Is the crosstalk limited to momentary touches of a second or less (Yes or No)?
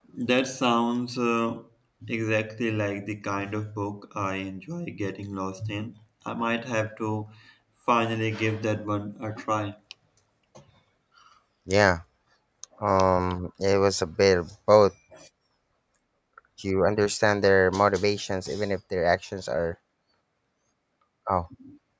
Yes